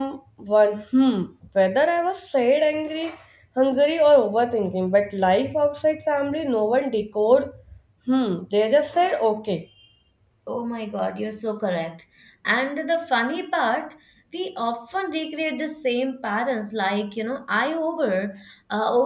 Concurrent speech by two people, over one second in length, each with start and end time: none

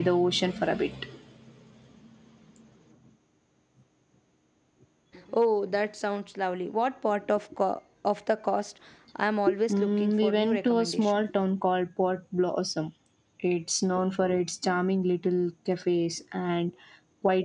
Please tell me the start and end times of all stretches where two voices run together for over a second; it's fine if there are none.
9.7-11.2

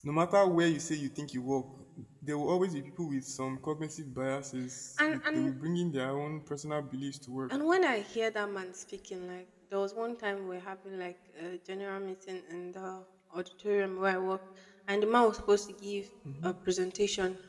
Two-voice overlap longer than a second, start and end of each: none

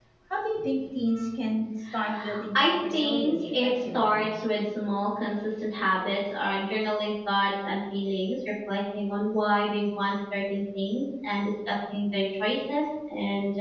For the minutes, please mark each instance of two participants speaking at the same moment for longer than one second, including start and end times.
2.5-4.3

